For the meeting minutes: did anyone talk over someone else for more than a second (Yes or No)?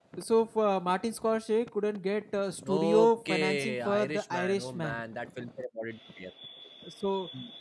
Yes